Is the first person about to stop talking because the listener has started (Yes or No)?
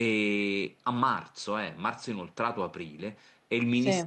No